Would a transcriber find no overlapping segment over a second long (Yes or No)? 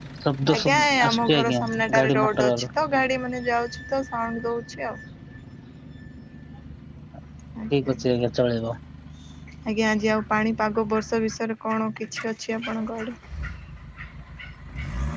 No